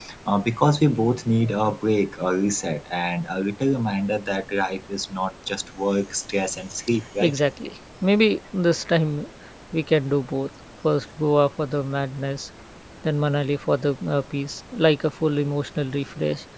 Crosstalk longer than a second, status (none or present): none